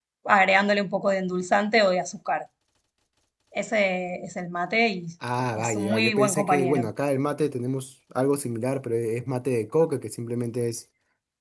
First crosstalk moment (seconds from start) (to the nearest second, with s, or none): 6 s